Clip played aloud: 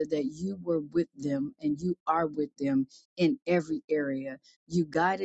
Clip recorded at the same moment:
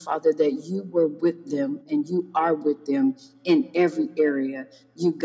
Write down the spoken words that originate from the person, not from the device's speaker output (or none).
none